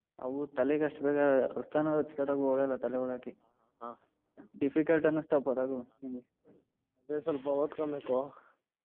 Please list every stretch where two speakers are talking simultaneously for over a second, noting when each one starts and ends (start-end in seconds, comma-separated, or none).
none